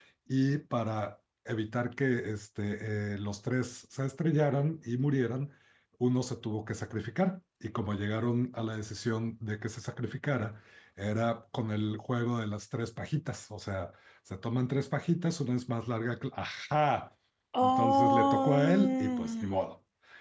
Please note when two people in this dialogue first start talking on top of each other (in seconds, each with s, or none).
17.6 s